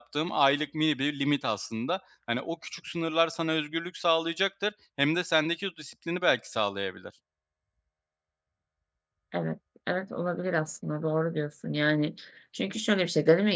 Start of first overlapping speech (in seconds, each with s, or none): none